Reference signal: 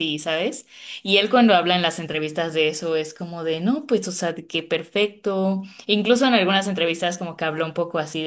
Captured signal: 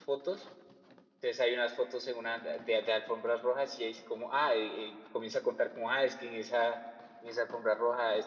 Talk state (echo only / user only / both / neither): user only